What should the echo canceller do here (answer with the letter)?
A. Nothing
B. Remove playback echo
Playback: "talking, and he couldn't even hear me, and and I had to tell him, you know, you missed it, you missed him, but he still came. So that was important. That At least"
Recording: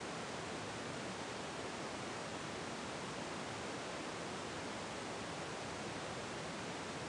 A